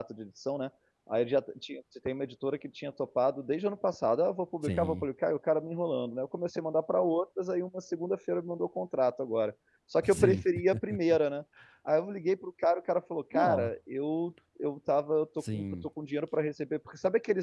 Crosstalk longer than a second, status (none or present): none